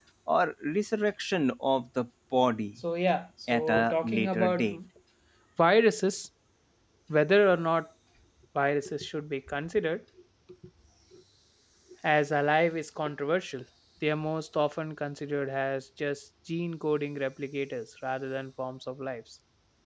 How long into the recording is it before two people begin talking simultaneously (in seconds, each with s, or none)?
3.5 s